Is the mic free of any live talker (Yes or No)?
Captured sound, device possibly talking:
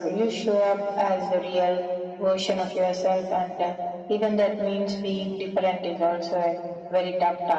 Yes